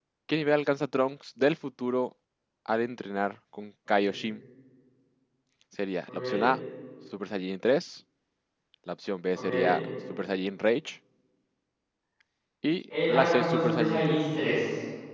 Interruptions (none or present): present